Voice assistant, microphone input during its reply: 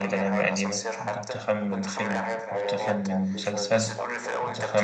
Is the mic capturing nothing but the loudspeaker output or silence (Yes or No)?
No